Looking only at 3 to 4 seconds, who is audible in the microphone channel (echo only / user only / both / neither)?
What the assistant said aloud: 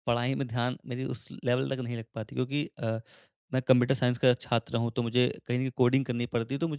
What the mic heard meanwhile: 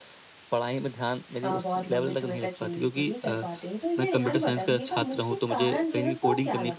both